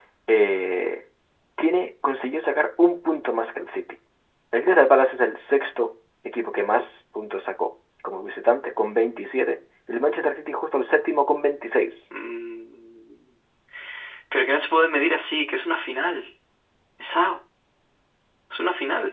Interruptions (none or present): none